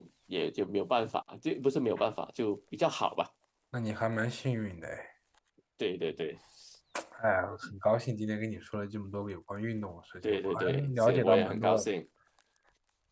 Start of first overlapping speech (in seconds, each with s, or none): 10.2 s